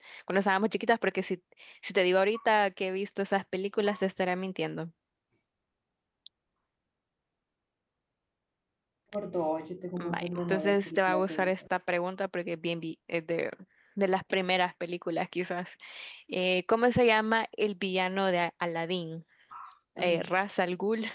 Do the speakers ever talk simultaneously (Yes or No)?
Yes